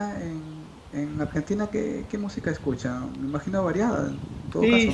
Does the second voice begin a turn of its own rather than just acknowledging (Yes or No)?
Yes